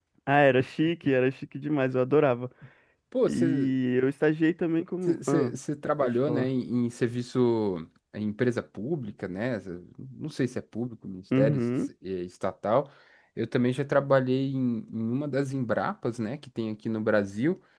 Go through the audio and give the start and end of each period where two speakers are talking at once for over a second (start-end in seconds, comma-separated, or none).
none